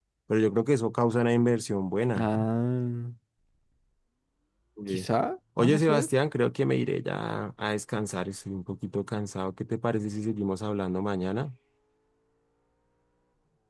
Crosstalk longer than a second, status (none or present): none